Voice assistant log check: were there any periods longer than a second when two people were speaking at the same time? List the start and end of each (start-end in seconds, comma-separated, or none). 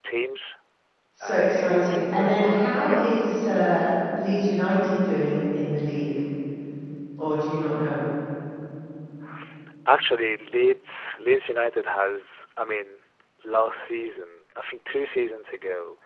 1.2-3.1